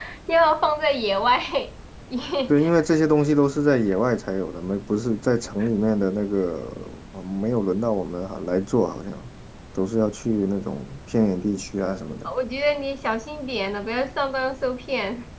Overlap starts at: none

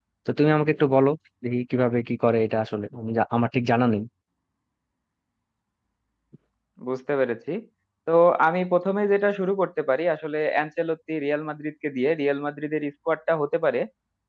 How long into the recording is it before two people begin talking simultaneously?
none

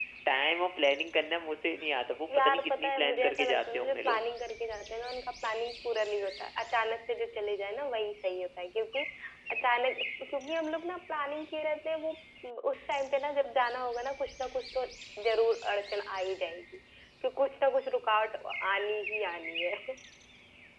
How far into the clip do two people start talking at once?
2.3 s

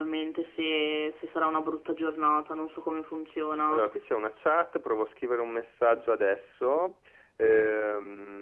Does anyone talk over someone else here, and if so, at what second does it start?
none

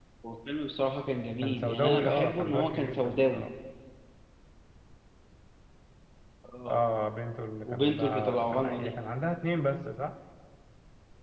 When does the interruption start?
1.4 s

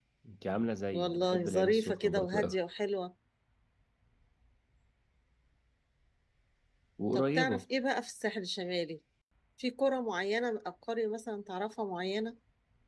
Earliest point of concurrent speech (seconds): 0.9 s

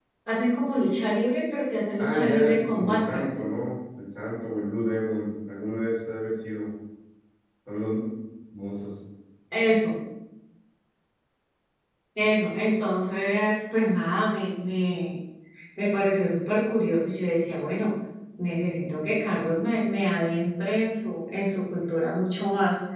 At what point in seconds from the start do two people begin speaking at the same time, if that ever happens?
2.0 s

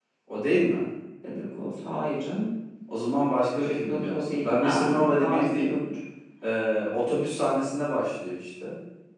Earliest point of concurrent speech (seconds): 3.6 s

